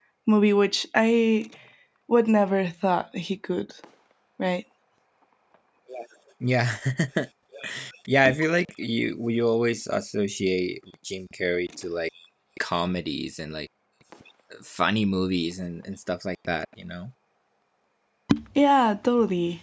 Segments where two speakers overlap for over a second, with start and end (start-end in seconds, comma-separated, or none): none